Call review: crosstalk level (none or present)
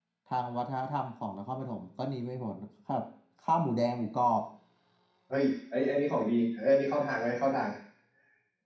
none